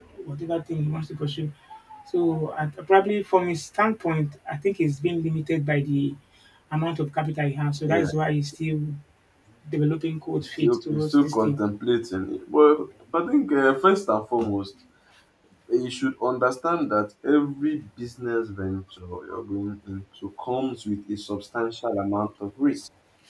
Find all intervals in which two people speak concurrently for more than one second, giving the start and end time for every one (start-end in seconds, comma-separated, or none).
10.4-11.6